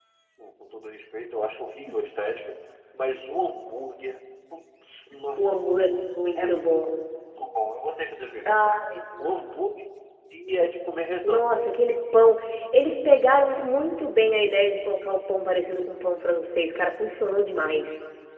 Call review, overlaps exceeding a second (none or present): none